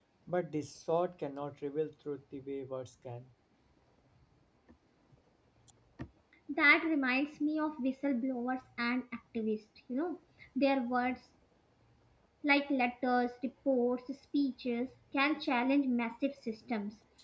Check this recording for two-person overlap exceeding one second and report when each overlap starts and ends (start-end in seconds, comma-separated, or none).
none